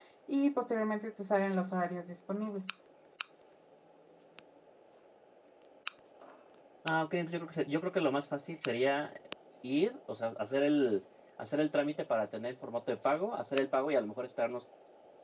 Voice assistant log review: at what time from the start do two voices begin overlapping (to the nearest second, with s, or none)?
none